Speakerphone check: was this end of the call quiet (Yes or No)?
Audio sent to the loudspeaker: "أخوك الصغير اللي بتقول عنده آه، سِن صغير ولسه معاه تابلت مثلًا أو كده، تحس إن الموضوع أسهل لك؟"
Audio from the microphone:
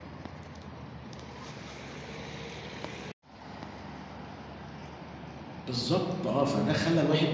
No